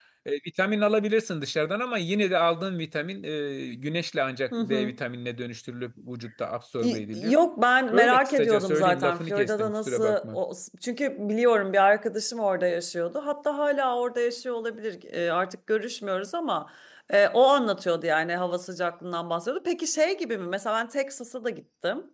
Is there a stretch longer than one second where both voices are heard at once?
Yes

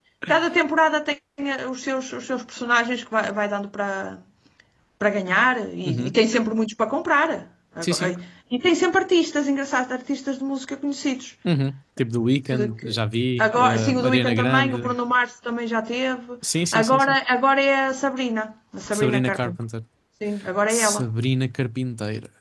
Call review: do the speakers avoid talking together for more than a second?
No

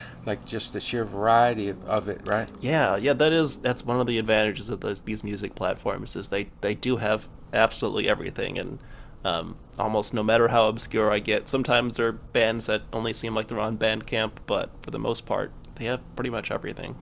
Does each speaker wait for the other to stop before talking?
Yes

